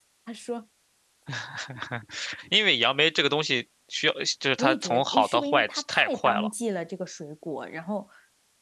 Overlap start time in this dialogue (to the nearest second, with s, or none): 5 s